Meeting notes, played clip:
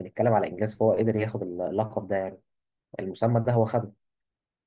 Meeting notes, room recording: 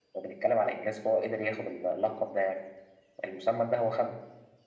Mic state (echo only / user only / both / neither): echo only